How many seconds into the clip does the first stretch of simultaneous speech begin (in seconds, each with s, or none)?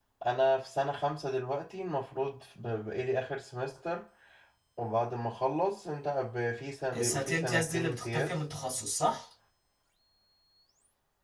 6.9 s